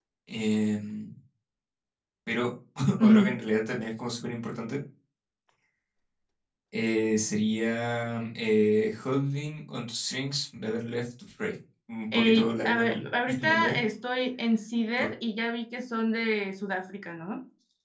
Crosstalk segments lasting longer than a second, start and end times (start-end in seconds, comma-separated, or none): 12.1-13.8